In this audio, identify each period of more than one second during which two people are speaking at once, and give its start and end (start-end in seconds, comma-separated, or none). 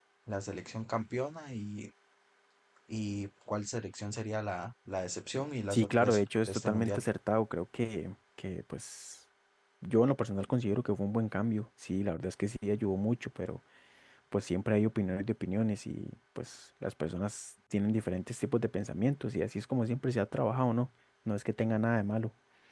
5.7-7.0